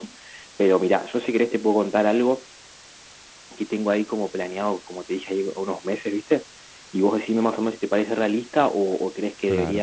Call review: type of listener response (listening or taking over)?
listening